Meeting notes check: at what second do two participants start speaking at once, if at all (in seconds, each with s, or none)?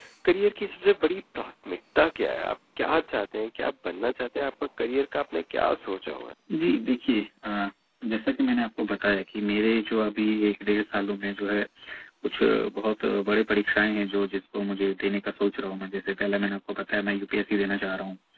none